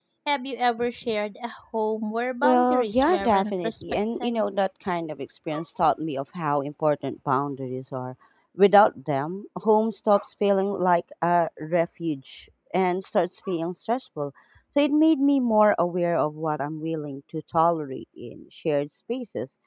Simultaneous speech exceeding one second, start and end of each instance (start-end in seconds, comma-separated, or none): 2.4-4.4